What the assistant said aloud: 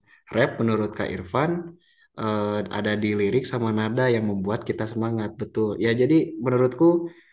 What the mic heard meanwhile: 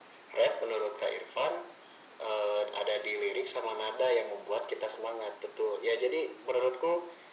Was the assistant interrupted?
No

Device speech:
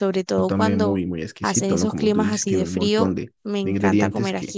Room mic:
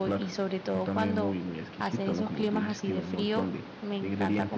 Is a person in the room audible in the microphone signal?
No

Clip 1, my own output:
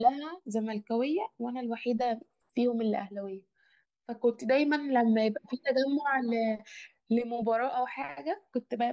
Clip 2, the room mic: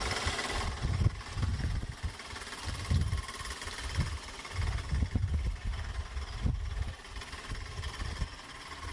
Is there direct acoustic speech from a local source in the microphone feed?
No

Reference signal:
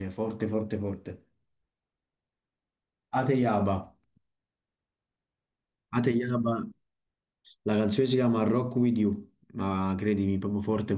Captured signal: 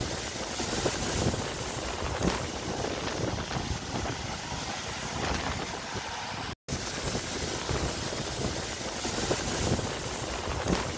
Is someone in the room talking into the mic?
No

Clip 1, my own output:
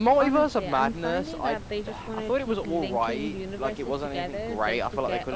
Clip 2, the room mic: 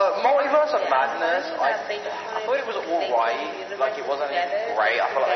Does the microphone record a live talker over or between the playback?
No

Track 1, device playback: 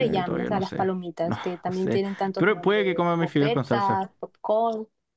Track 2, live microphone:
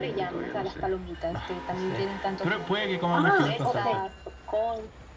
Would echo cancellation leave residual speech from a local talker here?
Yes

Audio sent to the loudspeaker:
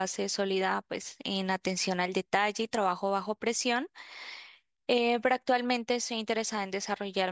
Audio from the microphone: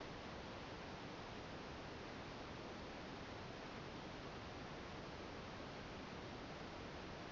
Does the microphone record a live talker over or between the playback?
No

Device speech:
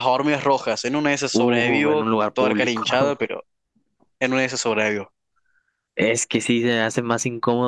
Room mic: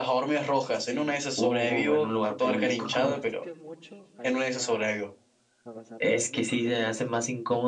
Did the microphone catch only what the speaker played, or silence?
No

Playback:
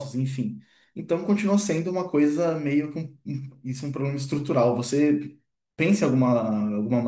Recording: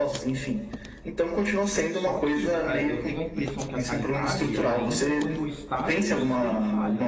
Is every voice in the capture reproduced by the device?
No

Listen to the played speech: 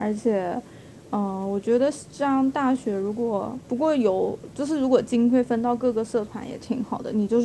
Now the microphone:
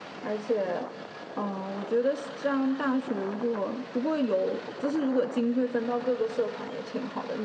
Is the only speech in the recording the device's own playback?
Yes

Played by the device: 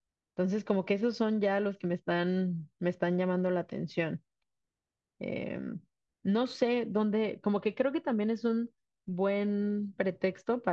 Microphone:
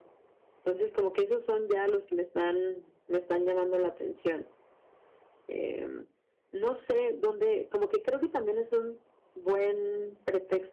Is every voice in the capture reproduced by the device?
Yes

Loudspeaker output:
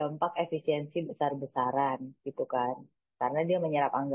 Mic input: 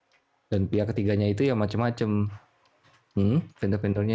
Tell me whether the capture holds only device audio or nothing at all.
No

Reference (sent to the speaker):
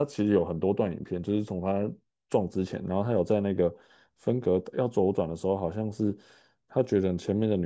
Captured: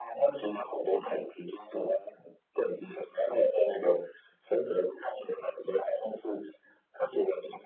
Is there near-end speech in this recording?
No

